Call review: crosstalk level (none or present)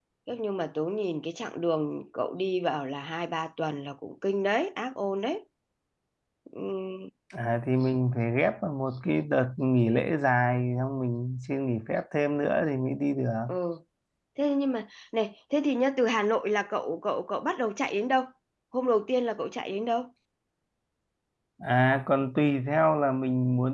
none